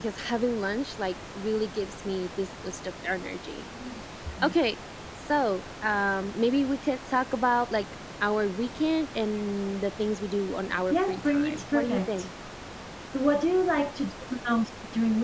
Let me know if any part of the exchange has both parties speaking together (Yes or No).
Yes